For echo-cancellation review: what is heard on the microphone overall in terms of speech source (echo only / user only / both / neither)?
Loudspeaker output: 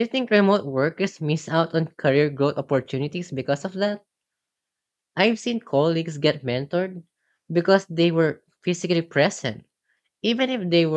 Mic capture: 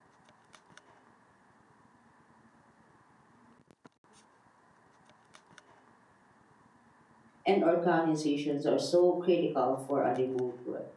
user only